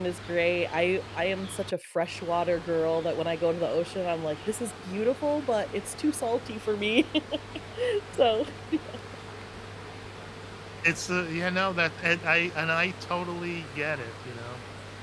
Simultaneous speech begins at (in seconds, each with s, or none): none